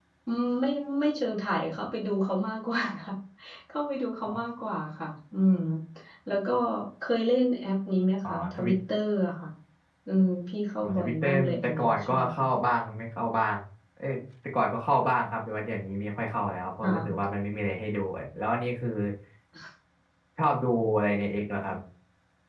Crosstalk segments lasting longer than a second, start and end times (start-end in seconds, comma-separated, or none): 10.8-12.4